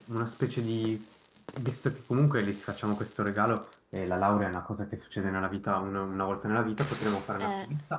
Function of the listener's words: listening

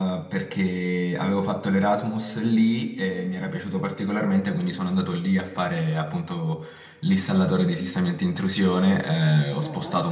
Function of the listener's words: listening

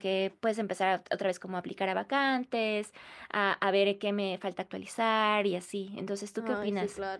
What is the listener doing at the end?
taking over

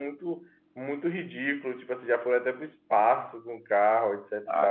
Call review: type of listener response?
taking over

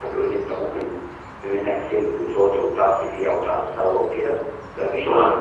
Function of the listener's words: listening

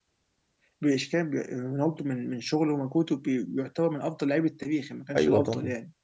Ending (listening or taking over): taking over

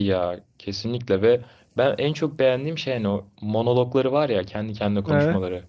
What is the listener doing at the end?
listening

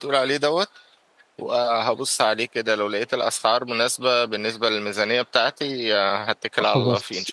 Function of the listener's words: taking over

